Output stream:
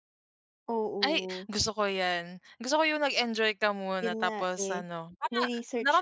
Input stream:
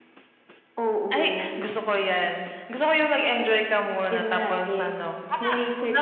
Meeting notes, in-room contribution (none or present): none